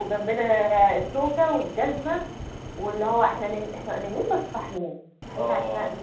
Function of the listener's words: listening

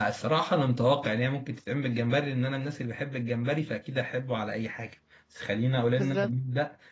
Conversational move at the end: listening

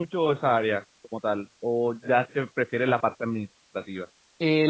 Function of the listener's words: taking over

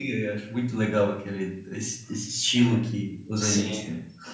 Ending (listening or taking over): taking over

